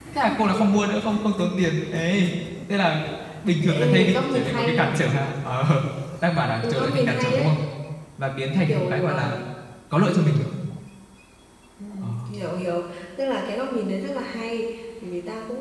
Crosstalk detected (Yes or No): Yes